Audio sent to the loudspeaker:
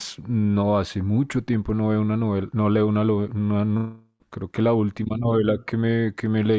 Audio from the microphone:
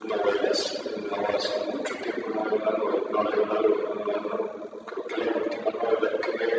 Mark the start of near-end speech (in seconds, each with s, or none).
none